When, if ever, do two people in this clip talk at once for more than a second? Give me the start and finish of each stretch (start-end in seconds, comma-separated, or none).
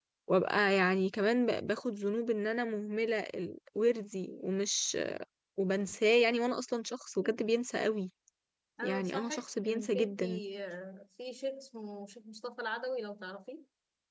8.8-10.2